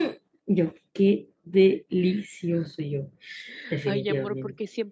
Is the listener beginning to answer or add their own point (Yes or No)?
Yes